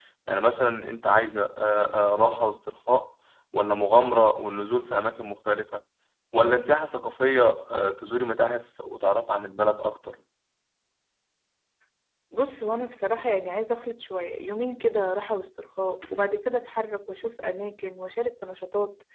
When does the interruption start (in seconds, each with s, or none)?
none